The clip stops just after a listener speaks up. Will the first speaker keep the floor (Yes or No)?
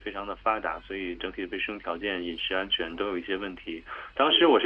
Yes